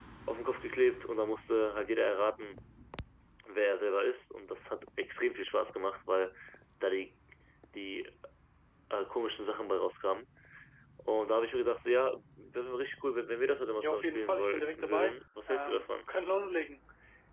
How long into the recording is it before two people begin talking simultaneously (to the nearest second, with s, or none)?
14 s